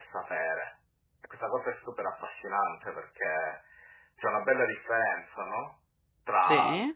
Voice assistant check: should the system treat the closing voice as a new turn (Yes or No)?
No